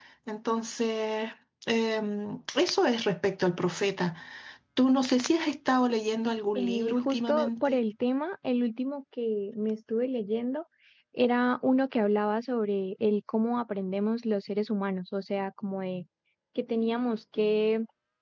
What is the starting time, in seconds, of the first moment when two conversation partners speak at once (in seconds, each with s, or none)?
6.6 s